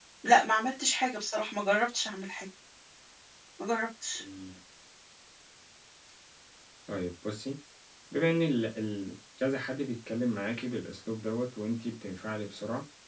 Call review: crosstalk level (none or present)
none